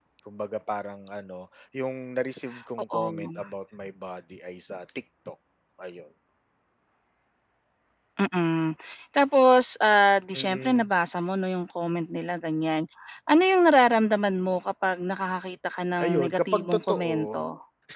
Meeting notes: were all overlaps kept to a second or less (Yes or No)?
No